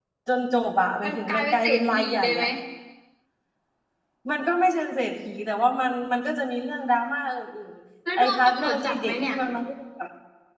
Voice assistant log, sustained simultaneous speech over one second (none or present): present